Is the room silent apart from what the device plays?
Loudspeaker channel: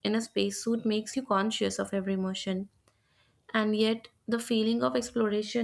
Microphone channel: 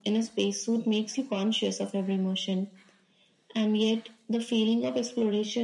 Yes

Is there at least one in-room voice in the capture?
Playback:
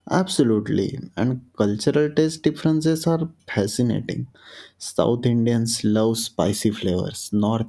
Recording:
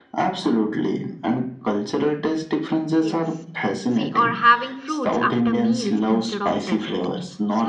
Yes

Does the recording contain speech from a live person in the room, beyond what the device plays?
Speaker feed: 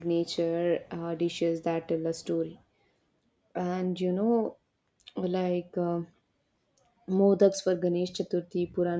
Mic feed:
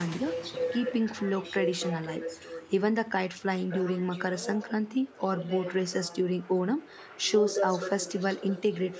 Yes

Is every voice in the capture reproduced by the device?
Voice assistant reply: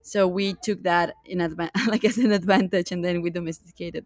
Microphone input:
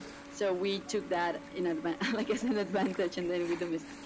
Yes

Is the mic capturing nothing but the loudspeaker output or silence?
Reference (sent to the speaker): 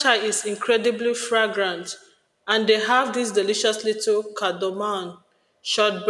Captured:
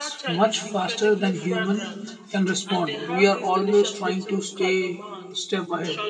No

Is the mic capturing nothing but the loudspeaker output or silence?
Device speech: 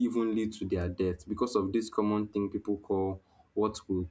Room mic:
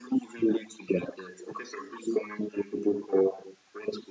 Yes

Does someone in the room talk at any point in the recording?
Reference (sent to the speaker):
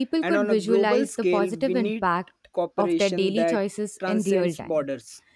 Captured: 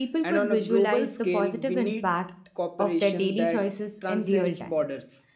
No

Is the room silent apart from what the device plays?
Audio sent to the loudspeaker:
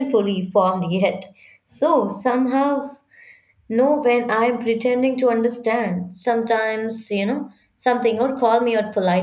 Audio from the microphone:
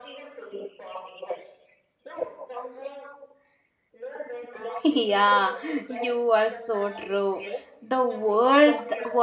No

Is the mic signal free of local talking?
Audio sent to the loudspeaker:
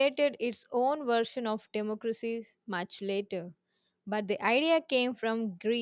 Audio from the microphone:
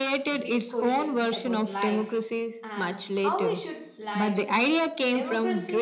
No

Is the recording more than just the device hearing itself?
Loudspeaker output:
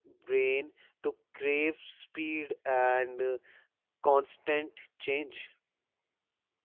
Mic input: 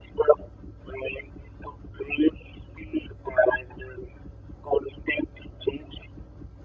No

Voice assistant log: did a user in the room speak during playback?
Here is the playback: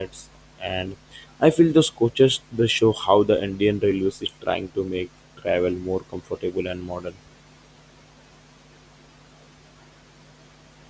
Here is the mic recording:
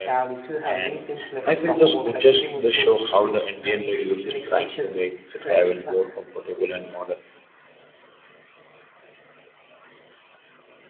Yes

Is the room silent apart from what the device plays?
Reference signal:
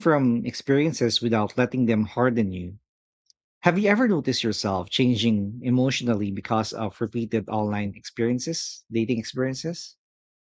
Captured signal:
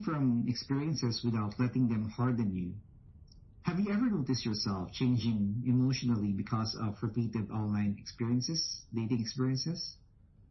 Yes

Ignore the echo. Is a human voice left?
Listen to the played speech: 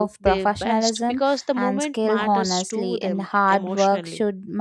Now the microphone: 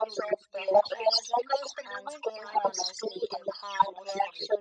No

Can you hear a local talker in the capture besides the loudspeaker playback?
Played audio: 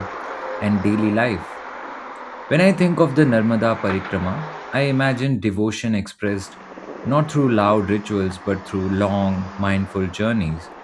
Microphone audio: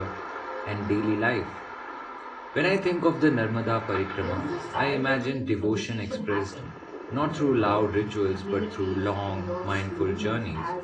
Yes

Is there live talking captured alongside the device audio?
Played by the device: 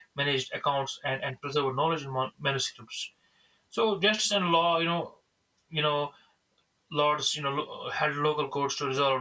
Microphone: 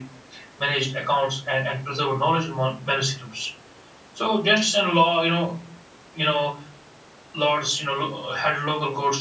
No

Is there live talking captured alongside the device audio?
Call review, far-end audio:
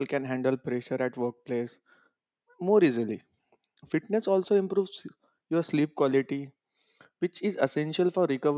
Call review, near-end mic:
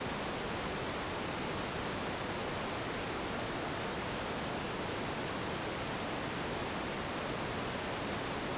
No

